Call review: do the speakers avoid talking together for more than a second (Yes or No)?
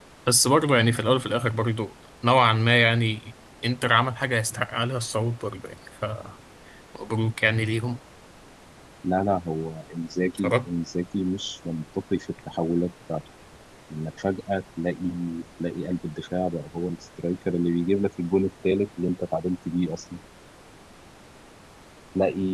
Yes